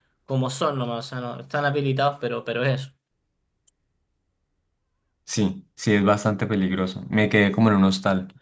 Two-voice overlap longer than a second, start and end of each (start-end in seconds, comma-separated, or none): none